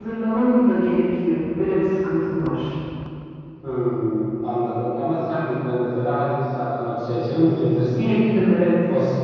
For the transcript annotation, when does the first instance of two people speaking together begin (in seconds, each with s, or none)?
none